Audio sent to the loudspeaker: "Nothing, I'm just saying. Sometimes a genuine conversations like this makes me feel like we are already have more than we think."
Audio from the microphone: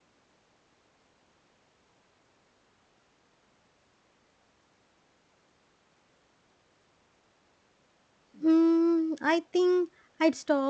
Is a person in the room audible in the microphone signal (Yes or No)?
Yes